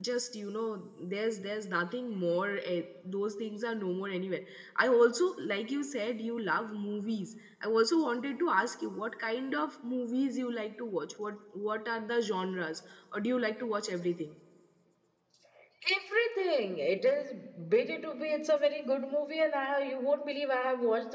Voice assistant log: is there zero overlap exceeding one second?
Yes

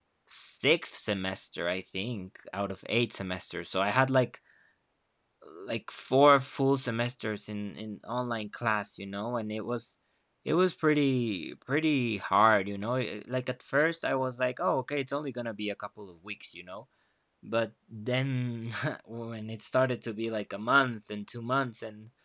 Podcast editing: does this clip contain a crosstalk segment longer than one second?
No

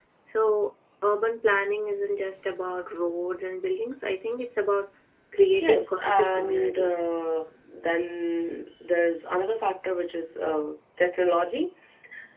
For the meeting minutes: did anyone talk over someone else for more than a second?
Yes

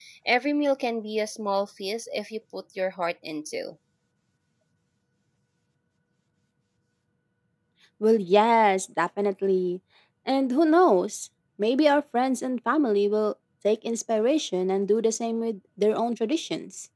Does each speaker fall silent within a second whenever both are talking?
Yes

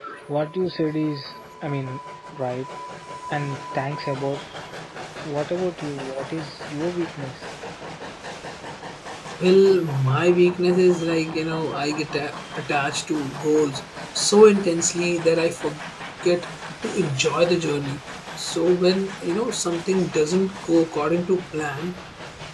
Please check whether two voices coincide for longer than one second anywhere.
No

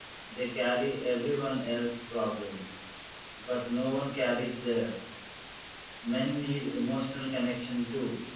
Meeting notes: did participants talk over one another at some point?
No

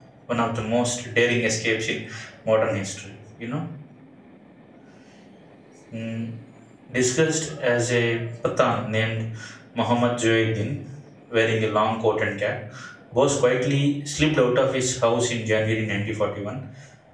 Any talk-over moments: No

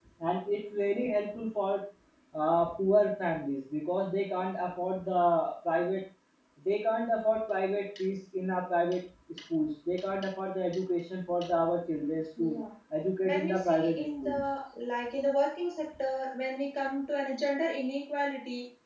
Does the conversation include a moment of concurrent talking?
Yes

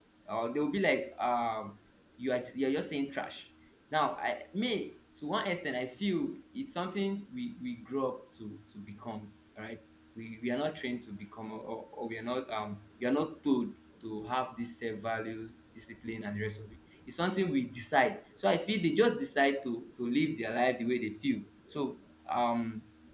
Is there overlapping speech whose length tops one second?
No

